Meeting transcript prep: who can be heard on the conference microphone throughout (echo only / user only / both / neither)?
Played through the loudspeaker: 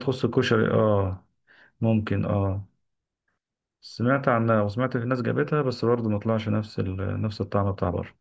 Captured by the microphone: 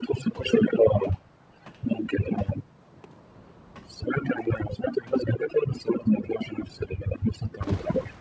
echo only